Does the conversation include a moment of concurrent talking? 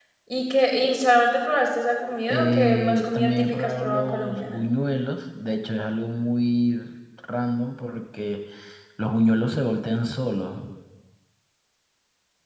Yes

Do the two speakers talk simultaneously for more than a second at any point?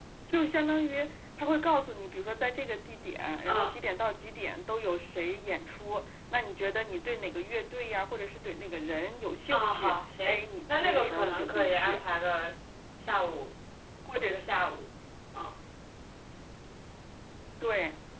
Yes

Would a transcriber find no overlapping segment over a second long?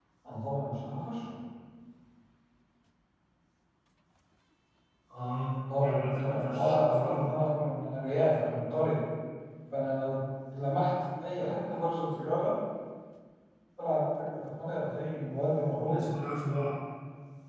No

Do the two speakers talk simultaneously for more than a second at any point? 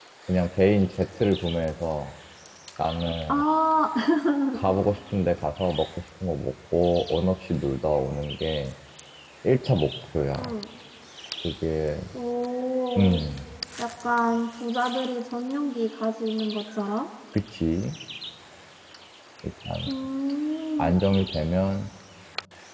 No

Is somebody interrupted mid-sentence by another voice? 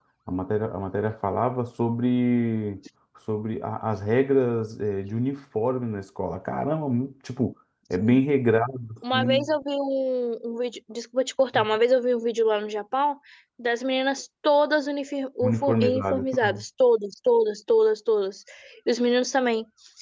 Yes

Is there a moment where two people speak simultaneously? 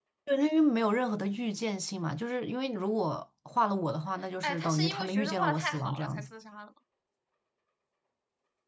Yes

